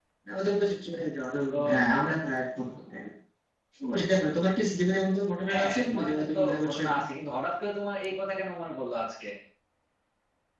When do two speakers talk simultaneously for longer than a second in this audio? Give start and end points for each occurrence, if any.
5.5-7.0

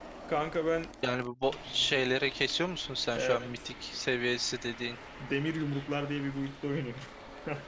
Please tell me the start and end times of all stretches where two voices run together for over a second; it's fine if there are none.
none

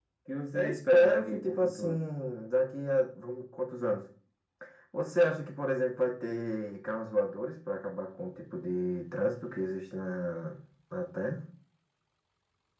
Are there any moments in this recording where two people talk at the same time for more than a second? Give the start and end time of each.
0.5-2.0

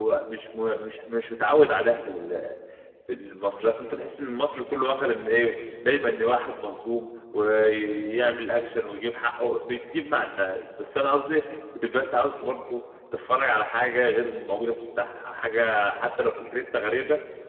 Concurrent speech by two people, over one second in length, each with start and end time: none

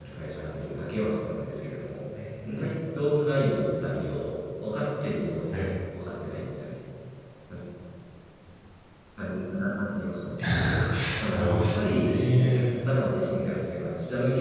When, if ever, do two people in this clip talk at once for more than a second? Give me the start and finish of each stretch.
11.3-12.8

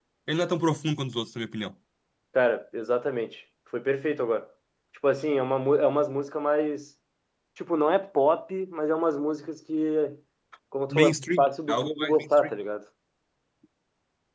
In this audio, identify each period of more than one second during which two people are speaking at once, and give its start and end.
10.9-12.5

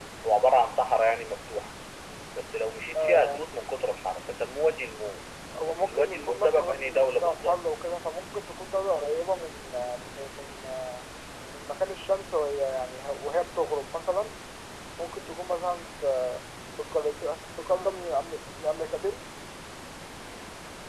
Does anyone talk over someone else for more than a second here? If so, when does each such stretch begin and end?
5.8-7.6

